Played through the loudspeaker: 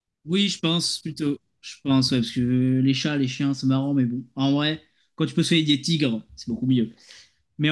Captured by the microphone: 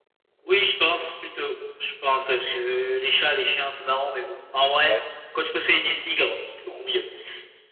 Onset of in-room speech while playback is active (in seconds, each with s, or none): 4.8 s